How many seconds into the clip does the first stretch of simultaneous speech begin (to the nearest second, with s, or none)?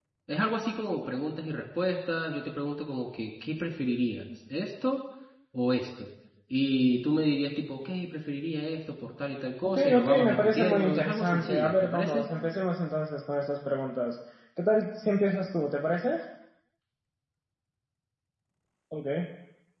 10 s